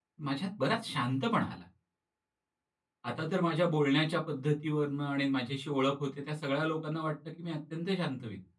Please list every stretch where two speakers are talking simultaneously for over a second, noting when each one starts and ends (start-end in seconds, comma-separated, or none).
none